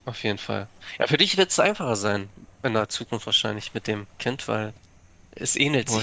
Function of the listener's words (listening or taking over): listening